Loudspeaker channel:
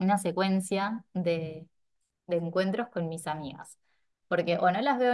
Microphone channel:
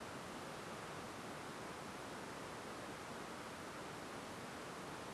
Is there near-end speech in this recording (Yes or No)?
No